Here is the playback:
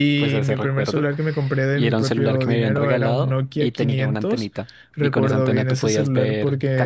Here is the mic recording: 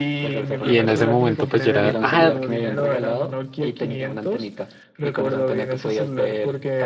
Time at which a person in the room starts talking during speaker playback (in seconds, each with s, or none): 0.6 s